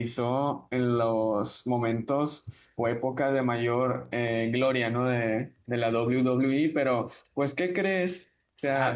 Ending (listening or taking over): listening